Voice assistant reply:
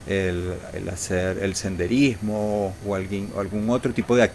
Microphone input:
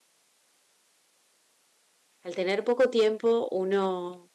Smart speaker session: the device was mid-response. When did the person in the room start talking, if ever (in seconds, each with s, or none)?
2.2 s